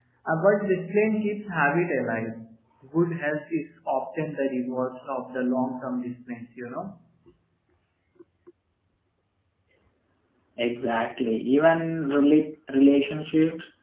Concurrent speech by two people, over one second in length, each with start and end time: none

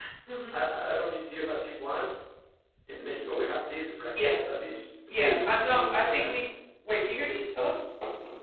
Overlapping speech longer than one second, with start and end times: 5.2-6.4

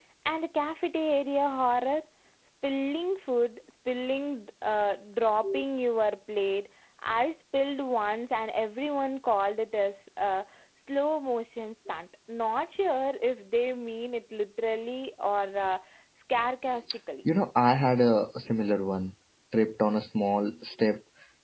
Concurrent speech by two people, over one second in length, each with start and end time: none

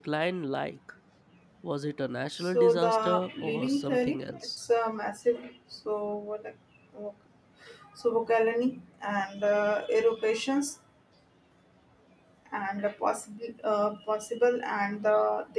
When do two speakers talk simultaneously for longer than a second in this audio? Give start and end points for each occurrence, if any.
2.4-4.5

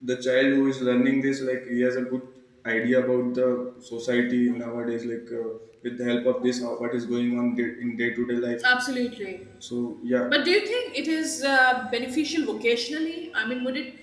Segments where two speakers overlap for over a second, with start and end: none

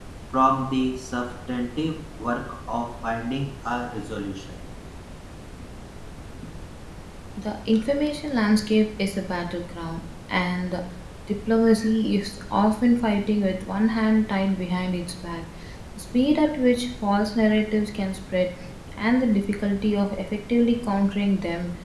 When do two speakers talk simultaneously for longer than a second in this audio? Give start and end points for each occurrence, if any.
none

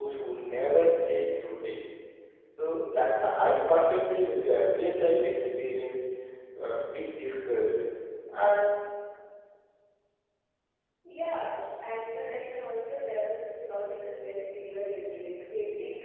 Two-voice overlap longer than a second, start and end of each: none

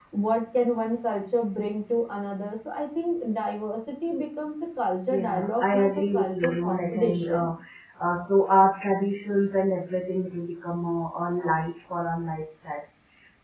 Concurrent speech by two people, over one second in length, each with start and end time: 5.1-7.5

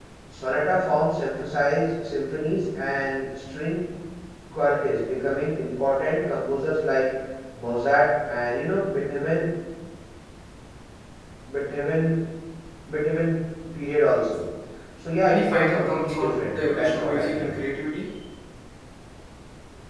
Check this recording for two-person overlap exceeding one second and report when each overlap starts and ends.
15.2-17.5

